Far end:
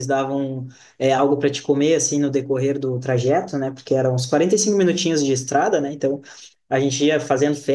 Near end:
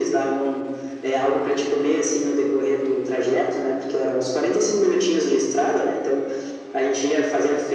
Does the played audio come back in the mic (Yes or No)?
Yes